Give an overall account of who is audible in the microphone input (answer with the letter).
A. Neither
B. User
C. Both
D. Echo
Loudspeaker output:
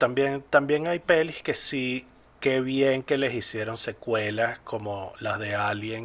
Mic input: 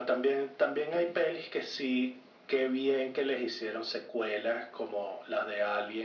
C